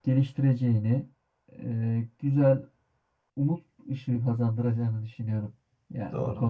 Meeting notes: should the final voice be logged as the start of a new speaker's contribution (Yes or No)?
Yes